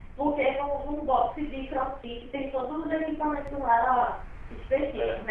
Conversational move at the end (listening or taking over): listening